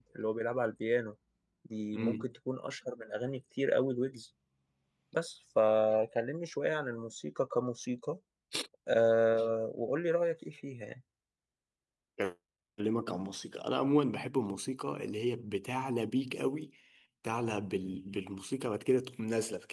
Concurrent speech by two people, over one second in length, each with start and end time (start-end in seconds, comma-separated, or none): none